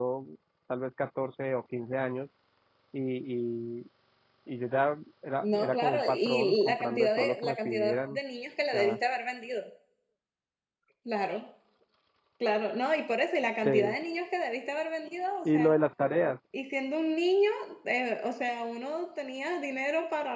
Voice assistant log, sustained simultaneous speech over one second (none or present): present